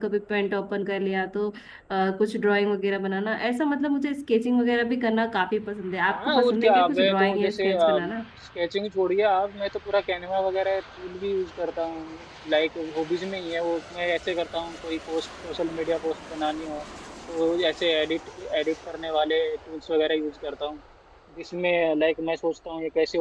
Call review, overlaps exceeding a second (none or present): present